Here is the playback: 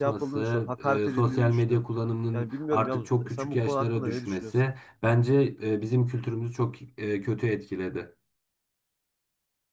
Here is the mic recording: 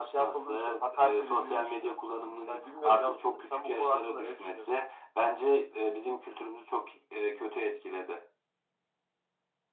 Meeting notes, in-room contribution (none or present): none